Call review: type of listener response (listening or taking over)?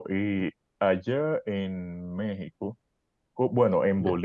listening